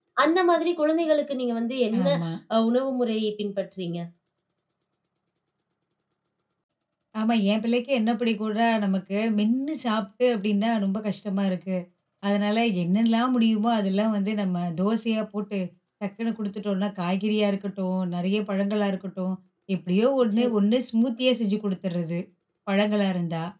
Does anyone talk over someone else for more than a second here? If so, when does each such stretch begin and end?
none

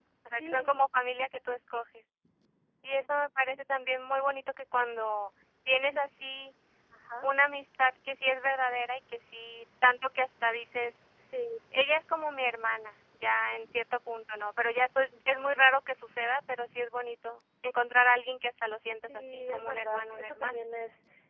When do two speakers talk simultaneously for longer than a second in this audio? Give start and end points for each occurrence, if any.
19.0-20.6

